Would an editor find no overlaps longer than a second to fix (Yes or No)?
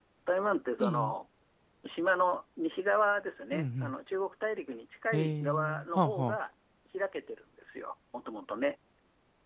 No